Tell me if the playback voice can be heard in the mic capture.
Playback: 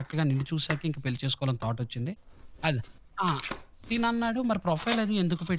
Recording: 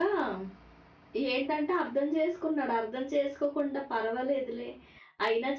No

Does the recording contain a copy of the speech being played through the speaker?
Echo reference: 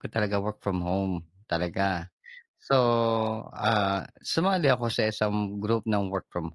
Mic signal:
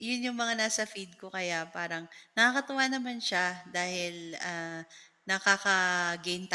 No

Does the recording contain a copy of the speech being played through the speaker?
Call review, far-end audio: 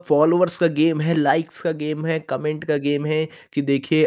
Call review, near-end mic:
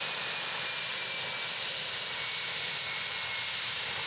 No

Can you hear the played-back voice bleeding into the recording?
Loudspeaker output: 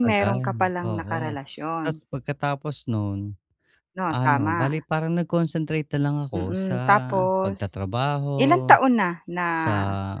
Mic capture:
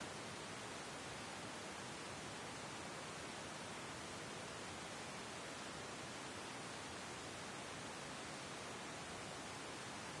No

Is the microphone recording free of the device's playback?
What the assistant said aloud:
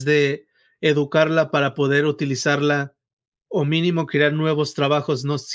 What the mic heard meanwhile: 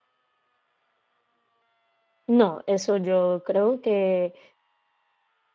Yes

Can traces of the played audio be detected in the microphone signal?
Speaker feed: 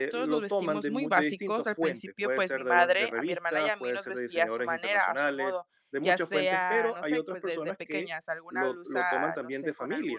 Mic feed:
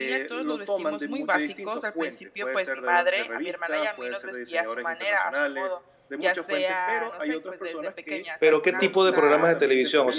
Yes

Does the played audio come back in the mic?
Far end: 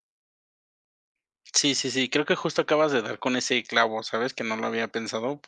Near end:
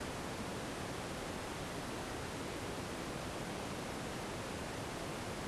No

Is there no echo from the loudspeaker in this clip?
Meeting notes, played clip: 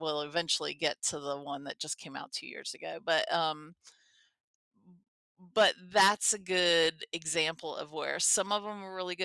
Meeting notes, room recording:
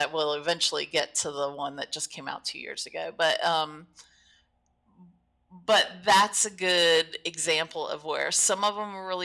No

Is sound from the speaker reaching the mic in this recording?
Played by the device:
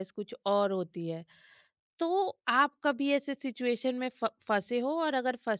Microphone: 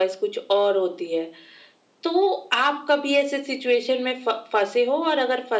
Yes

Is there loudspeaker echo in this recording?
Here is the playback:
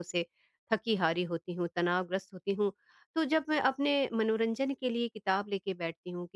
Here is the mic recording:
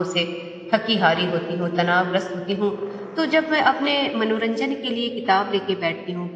Yes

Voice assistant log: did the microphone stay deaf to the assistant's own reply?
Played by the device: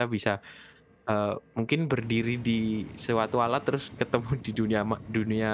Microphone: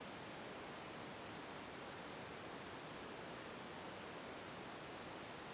Yes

